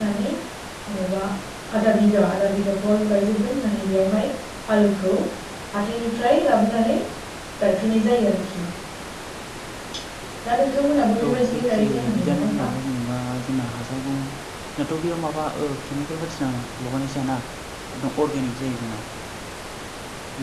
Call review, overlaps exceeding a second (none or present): present